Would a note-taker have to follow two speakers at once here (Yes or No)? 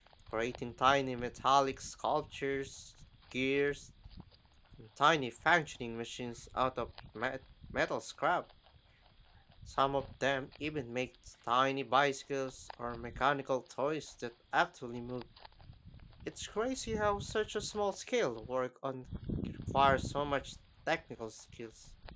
No